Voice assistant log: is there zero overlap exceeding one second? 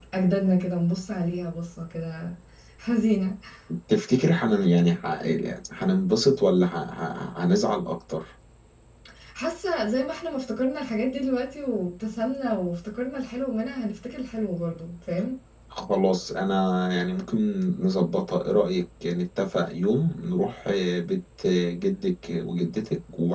Yes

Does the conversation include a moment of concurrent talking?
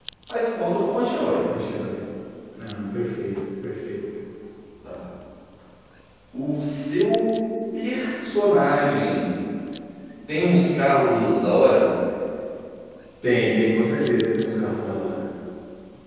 No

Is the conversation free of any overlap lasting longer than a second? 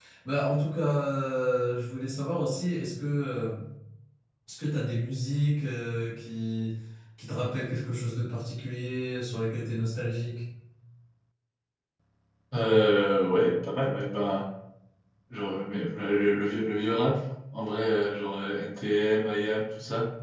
Yes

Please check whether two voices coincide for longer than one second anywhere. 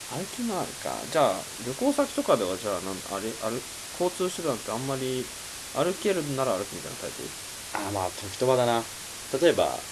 No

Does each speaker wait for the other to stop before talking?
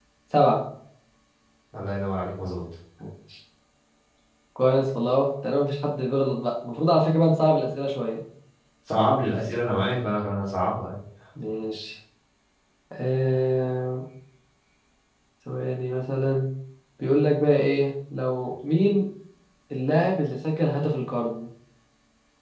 Yes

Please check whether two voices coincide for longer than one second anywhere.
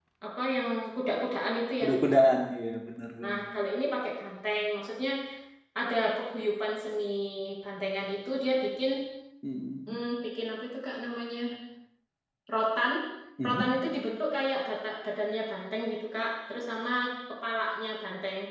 No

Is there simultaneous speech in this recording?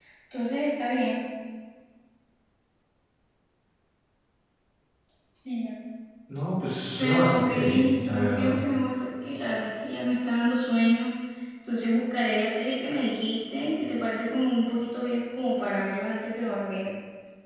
Yes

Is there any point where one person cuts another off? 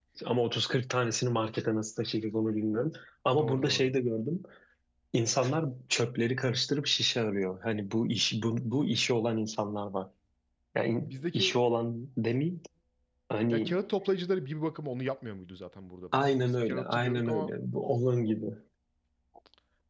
Yes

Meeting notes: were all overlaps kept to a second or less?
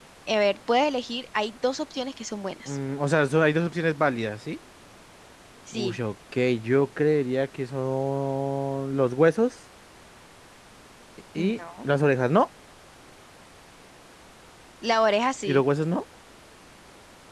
Yes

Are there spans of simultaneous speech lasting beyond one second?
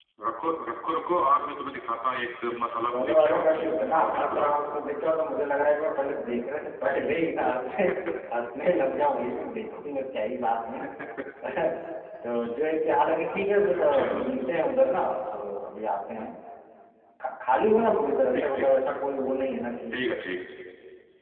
Yes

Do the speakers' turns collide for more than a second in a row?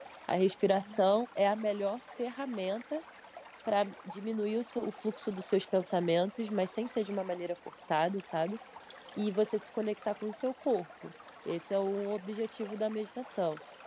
No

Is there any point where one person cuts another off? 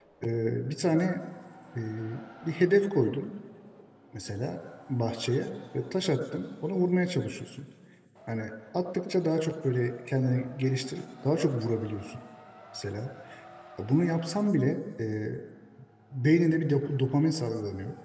No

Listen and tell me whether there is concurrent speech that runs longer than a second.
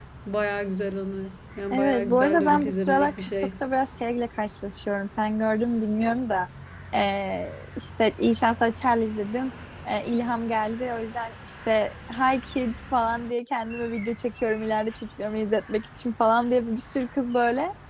Yes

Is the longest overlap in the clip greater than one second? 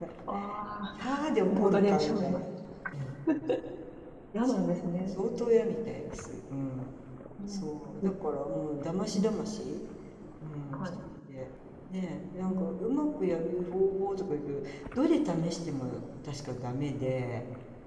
Yes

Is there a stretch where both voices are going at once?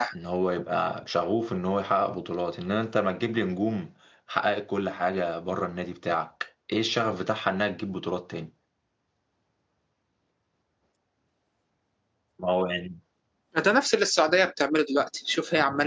No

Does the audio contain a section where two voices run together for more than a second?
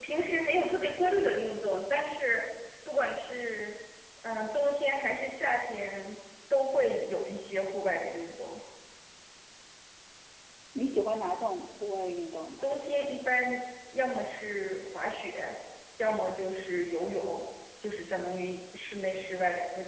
No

